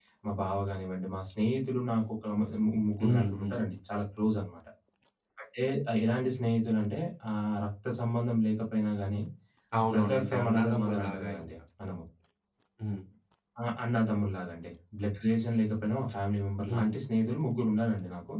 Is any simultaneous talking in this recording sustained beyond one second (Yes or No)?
Yes